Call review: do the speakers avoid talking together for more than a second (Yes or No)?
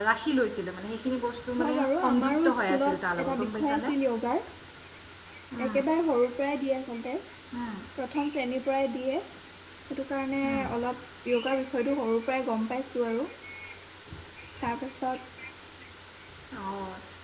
No